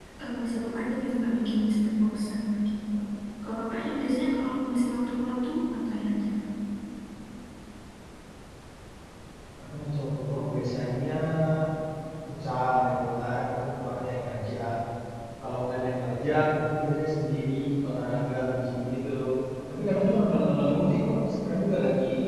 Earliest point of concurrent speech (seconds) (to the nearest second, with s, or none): none